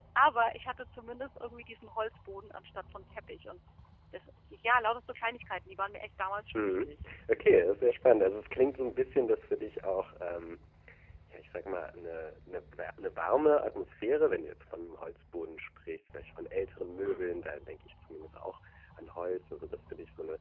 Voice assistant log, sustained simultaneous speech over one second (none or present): none